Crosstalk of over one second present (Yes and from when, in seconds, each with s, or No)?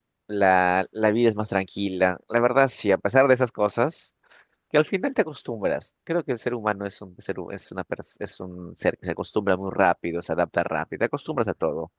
No